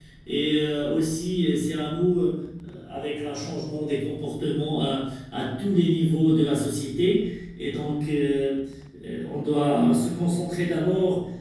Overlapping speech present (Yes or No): No